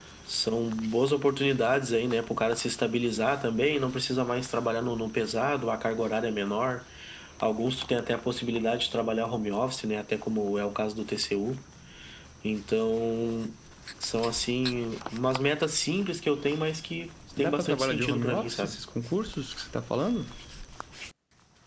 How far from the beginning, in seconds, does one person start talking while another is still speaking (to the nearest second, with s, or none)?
17 s